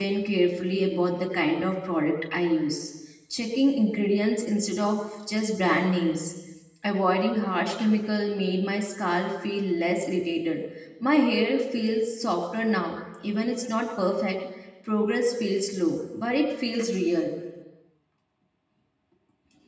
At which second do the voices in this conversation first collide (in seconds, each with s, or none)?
none